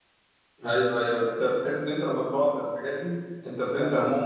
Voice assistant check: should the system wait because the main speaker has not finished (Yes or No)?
No